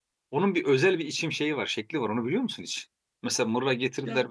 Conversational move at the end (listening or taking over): listening